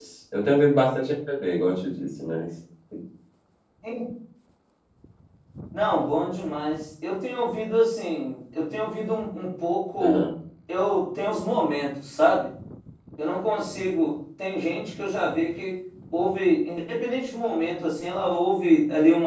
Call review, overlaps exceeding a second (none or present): none